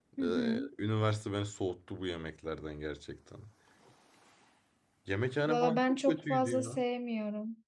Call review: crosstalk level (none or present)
present